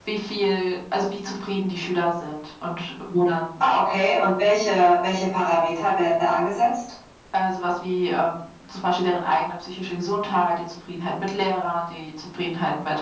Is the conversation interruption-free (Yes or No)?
Yes